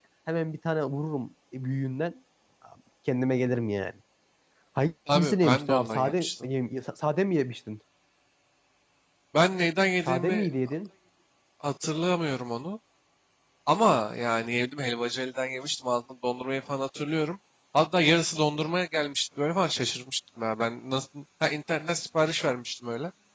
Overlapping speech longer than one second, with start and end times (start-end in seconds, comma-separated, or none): 5.1-6.5